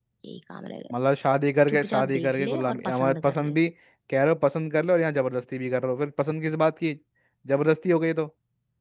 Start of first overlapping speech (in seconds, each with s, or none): 1.7 s